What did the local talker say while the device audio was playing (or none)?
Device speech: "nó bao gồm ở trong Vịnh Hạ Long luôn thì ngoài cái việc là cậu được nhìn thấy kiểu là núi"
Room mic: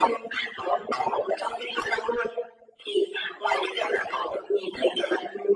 none